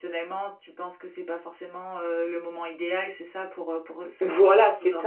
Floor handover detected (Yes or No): Yes